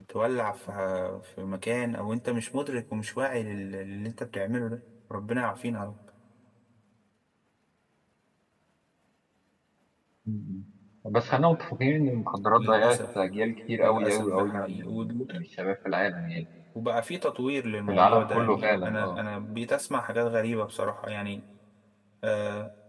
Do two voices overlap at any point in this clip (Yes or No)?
Yes